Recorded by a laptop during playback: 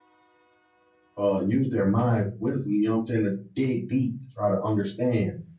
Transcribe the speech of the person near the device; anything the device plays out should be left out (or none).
uh use their minds, wisdom, you know what I'm saying, to dig deep to try to understand.